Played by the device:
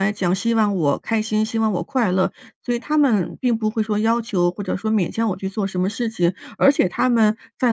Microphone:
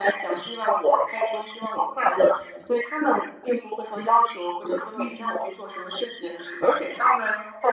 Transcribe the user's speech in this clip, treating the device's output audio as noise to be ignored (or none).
嗯。